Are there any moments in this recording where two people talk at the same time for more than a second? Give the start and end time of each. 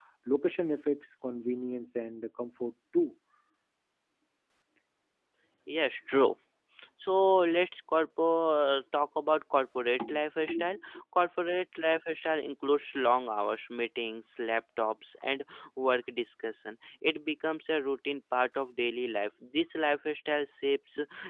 none

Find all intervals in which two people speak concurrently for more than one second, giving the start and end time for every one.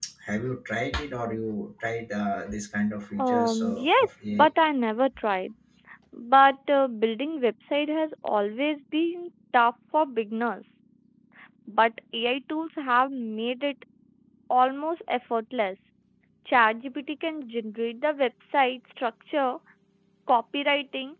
3.2-4.5

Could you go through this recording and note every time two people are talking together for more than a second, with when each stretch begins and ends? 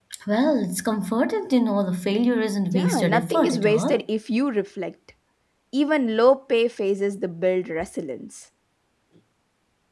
2.7-4.0

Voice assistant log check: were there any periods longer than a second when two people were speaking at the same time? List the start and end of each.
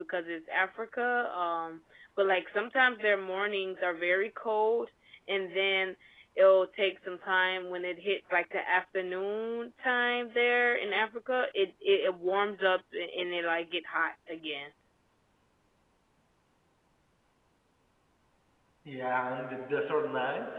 none

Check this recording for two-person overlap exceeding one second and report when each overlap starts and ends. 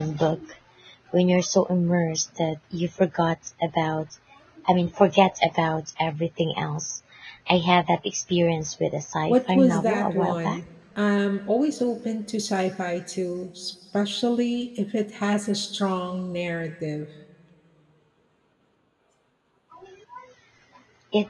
9.3-10.6

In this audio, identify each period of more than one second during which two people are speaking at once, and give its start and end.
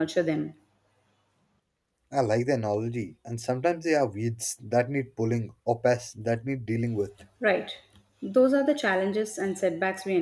none

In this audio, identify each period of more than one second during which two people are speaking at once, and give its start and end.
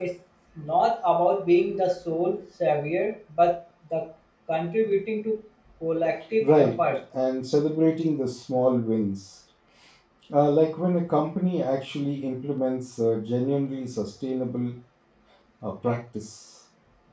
none

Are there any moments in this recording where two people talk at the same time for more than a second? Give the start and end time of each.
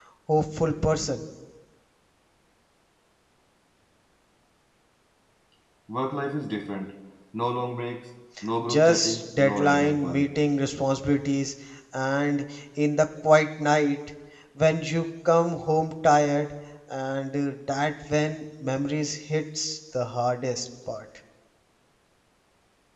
8.7-10.3

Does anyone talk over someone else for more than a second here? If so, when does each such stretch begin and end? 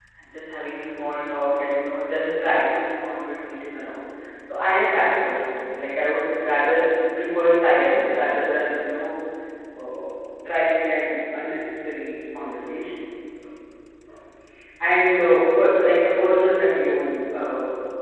none

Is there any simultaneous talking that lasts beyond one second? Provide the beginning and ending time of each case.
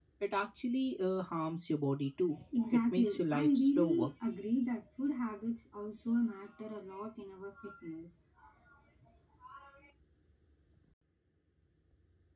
2.7-4.1

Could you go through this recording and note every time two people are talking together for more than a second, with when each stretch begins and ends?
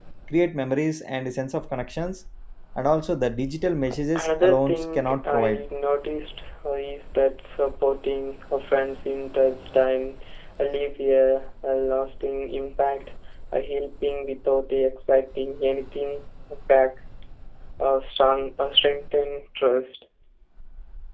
4.2-5.6

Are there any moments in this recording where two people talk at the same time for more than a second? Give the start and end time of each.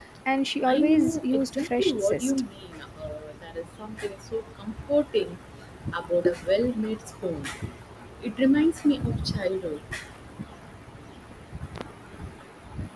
0.7-2.3

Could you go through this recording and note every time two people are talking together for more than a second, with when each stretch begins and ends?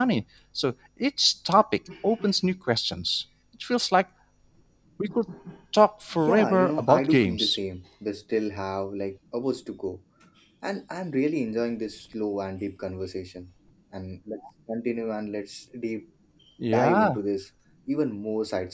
6.3-7.6

